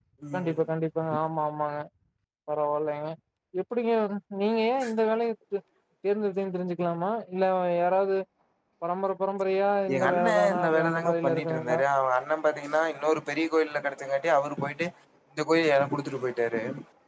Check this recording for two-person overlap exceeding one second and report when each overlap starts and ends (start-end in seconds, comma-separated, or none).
9.9-11.8